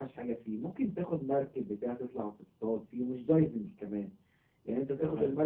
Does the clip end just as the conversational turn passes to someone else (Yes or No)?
No